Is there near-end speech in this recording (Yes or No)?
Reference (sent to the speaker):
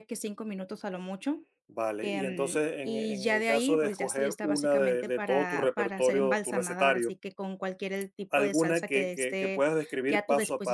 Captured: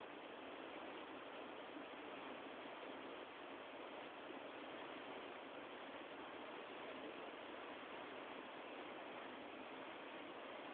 No